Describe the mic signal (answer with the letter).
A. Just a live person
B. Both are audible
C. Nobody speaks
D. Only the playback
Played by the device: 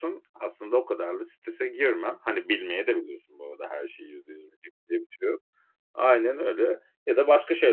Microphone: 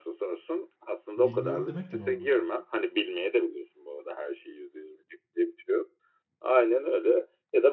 B